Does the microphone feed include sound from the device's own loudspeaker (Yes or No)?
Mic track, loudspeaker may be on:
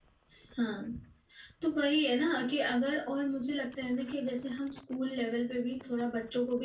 No